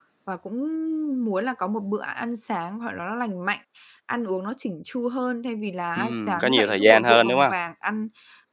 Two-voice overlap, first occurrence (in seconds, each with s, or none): 6.0 s